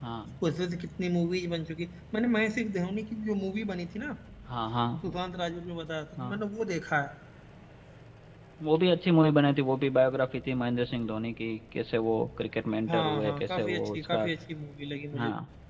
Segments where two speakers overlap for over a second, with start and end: 12.9-14.3

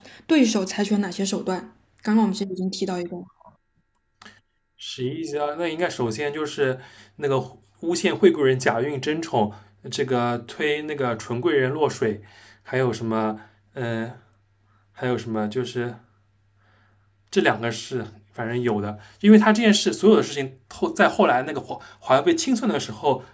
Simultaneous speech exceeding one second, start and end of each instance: none

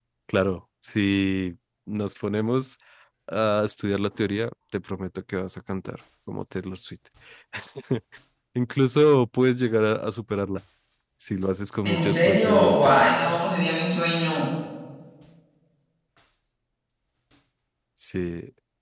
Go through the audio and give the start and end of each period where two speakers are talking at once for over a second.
11.8-13.1

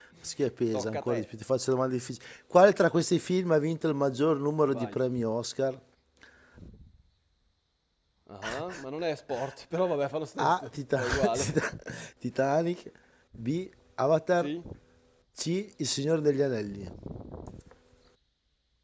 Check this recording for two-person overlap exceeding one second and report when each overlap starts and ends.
10.4-11.6

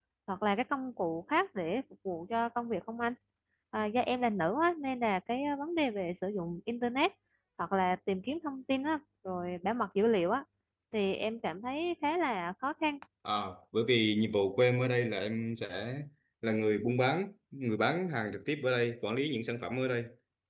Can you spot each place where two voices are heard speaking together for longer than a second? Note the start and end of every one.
none

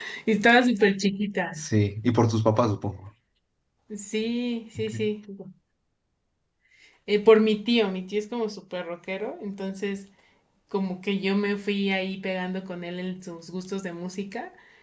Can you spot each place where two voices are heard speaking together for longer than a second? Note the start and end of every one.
none

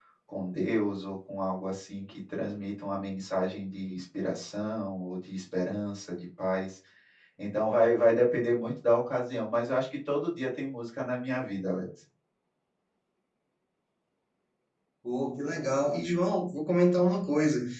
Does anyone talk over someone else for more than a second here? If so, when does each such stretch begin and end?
none

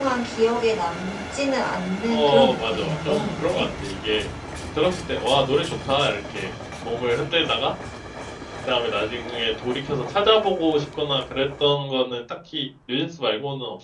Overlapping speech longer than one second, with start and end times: 2.1-3.7

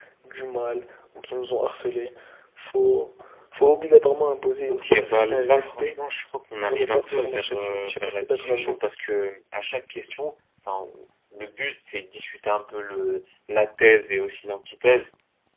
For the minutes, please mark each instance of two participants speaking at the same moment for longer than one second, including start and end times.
4.7-6.0, 6.6-8.9

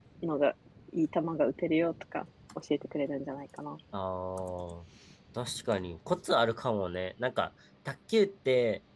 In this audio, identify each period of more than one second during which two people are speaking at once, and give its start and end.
none

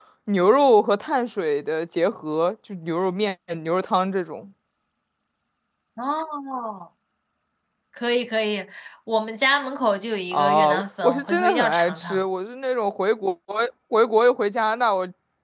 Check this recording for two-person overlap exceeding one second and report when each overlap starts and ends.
10.3-12.2

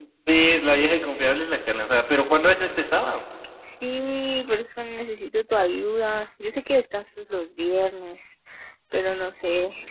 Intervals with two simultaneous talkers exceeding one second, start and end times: none

